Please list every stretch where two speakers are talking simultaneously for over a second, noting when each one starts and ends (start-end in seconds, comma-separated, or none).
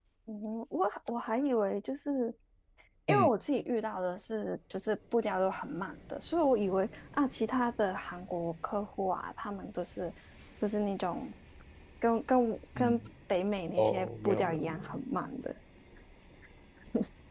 13.8-15.0